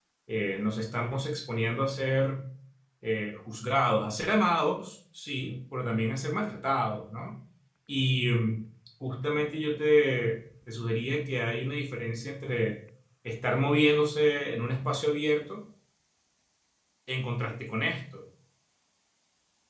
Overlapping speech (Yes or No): No